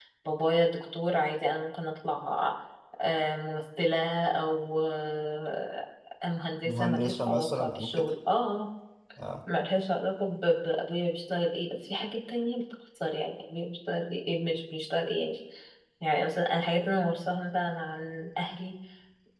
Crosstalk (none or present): present